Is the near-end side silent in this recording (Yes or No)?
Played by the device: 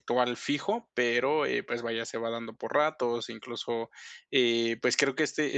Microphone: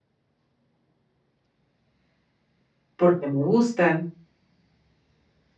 No